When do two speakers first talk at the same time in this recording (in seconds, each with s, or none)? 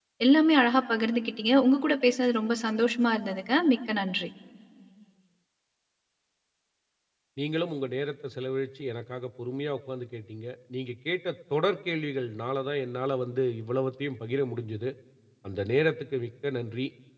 none